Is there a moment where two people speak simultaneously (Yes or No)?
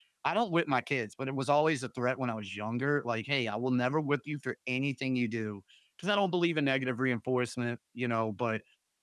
No